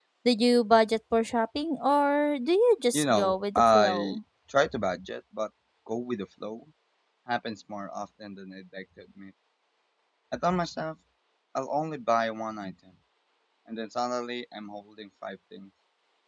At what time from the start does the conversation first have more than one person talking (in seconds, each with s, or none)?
2.9 s